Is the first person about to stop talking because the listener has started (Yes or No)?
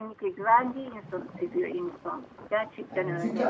Yes